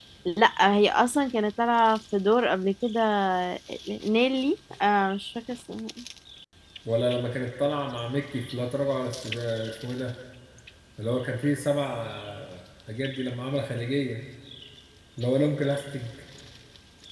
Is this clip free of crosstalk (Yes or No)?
Yes